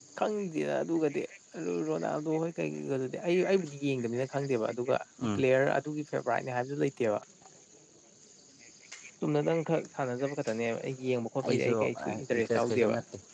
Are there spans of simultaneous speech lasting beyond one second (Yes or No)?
Yes